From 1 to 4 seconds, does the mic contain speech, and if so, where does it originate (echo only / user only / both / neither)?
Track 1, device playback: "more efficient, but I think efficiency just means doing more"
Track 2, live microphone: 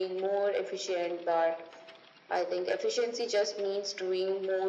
echo only